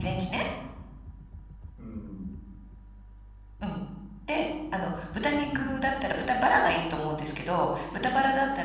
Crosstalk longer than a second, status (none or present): none